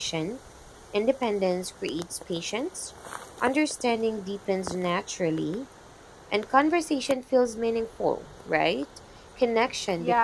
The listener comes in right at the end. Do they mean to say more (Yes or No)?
Yes